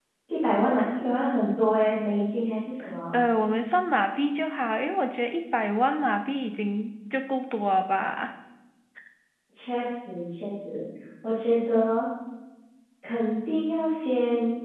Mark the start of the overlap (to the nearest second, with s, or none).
none